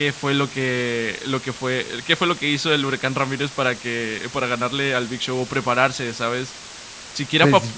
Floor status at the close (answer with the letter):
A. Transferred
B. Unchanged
B